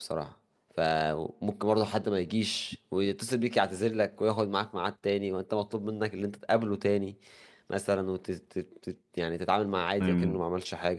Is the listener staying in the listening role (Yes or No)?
Yes